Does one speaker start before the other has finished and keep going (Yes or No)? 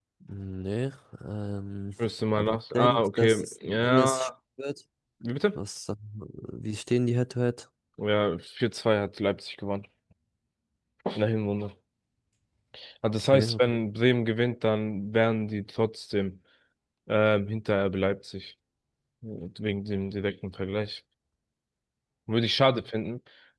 Yes